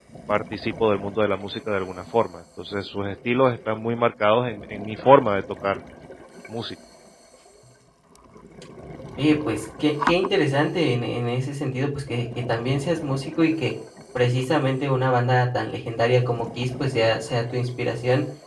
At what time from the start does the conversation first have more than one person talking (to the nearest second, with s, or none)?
none